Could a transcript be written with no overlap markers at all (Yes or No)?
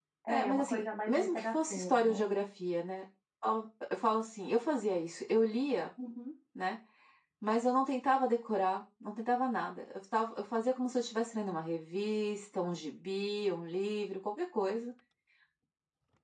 No